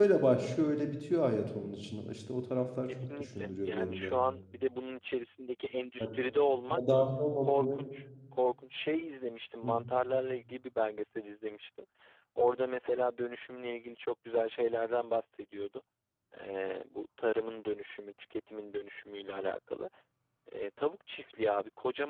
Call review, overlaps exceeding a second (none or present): present